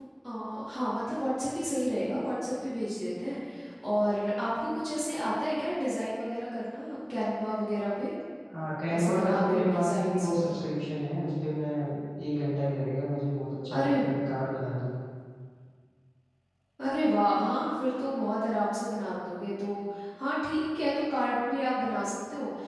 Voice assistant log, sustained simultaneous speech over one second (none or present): present